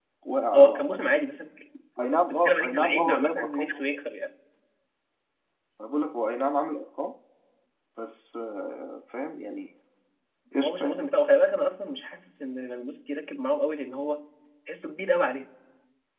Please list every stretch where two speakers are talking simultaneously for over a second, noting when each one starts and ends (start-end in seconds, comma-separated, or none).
2.2-3.8